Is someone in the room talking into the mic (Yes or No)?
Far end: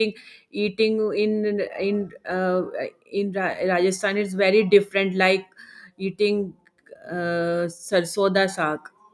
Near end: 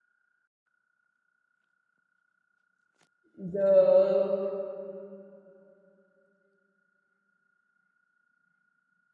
Yes